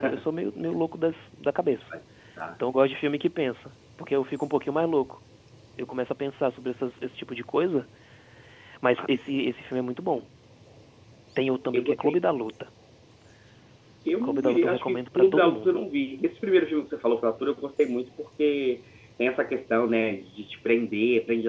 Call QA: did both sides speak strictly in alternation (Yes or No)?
No